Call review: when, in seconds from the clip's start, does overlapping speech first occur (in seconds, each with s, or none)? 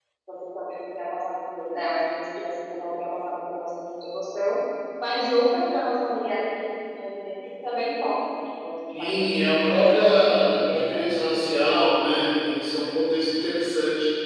8.9 s